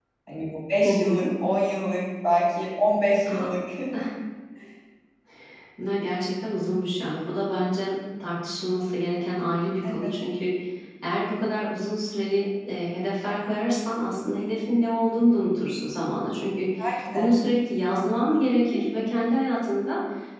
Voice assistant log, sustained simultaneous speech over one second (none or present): none